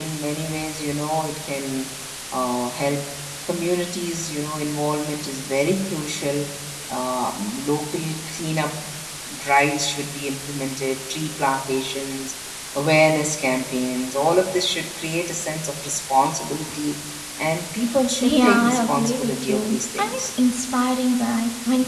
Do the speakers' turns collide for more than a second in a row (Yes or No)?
Yes